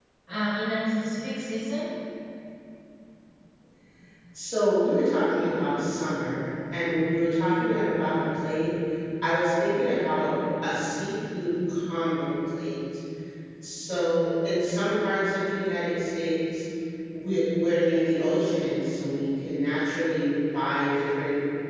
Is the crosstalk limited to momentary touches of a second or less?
Yes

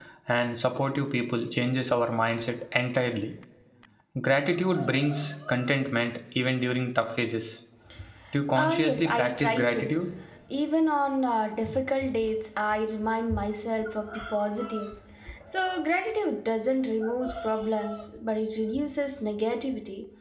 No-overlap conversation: No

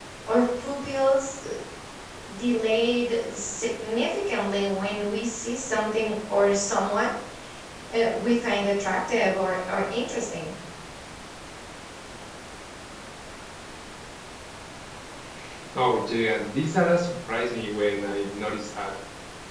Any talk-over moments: No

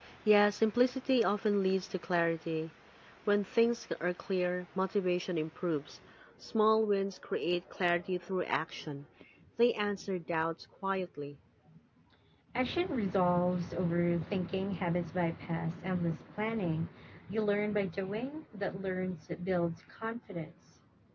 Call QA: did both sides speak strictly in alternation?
Yes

